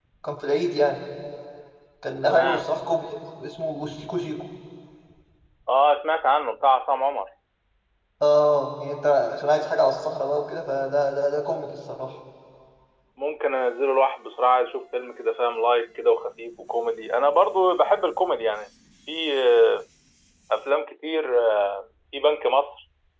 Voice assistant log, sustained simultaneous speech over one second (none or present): none